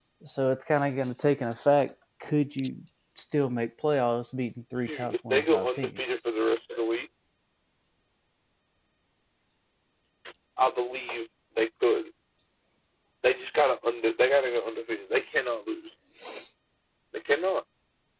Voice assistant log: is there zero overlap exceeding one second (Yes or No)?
No